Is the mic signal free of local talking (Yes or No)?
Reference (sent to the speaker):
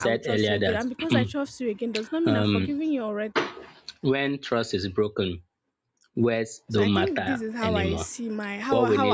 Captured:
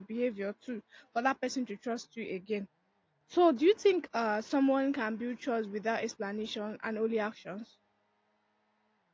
No